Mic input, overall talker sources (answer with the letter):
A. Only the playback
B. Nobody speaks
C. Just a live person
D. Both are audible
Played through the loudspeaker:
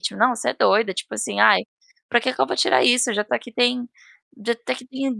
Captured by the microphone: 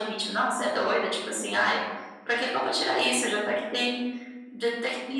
A